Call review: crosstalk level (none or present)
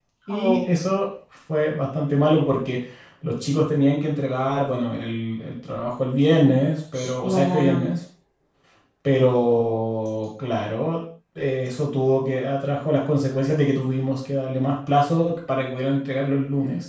present